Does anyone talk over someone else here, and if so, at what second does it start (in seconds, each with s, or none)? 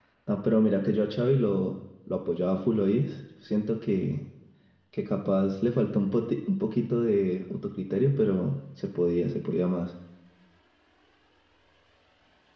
none